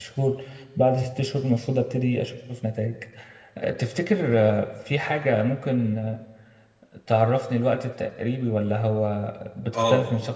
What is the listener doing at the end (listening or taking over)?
taking over